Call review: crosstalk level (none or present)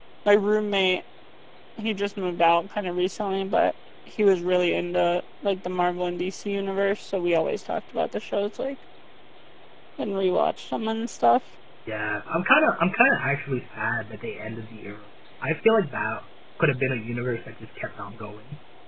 none